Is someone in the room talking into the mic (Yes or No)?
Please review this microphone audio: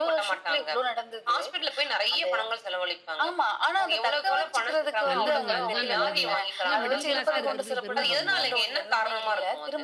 Yes